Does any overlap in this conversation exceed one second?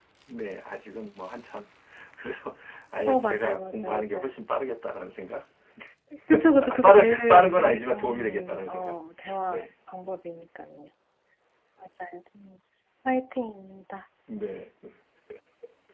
Yes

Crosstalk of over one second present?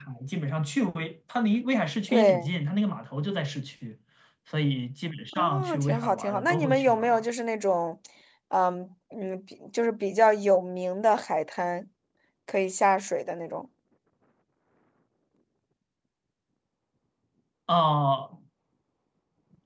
Yes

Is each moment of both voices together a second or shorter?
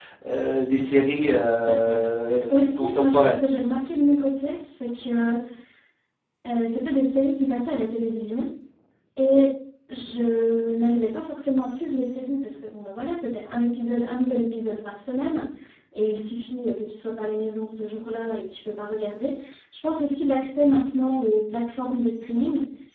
No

